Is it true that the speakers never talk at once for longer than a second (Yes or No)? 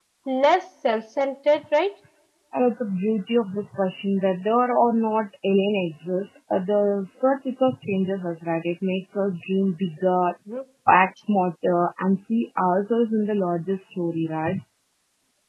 Yes